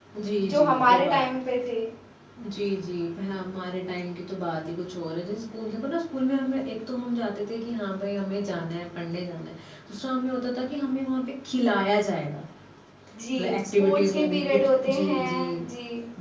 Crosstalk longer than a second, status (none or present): present